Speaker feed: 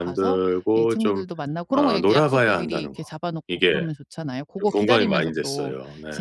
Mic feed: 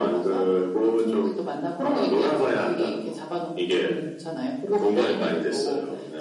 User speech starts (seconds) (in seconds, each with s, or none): none